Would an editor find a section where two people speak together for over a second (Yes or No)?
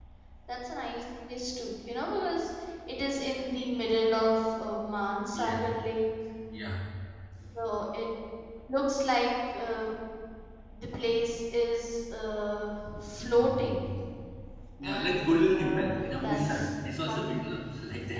Yes